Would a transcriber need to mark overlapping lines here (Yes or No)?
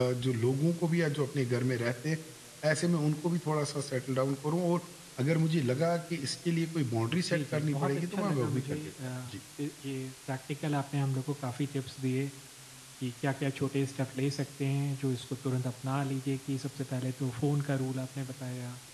Yes